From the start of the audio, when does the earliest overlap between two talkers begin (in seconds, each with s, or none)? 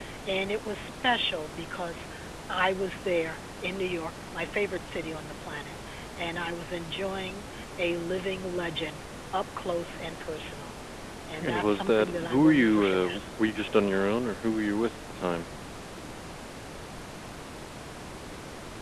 11.4 s